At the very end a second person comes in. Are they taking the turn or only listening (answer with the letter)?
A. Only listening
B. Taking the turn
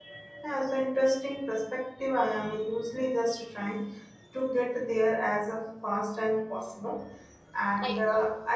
A